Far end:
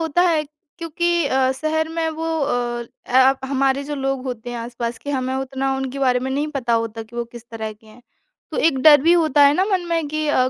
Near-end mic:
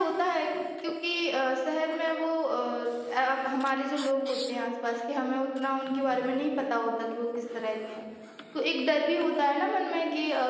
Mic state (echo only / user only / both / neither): echo only